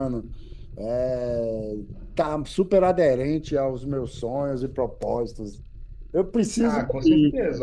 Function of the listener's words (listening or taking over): taking over